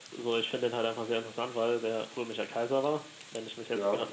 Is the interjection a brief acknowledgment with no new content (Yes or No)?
Yes